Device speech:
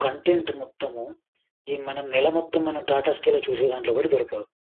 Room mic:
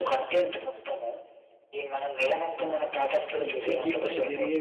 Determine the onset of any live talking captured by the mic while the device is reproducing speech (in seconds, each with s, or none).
3.3 s